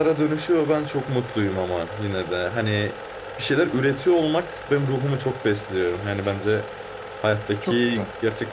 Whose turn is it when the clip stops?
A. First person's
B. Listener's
A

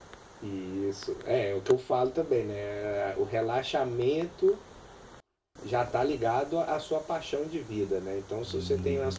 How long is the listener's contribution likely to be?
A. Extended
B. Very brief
B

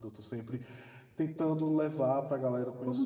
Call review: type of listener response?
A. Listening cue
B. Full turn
B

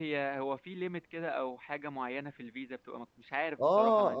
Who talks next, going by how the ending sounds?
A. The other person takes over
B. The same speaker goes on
A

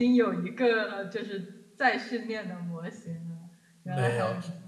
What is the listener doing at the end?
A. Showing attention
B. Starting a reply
B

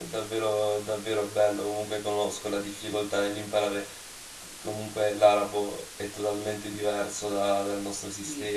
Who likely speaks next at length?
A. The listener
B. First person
B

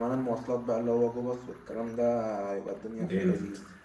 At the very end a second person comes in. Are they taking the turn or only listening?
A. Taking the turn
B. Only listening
A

